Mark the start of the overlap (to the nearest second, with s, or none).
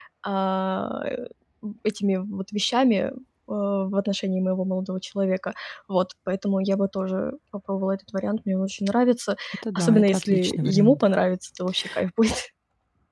10 s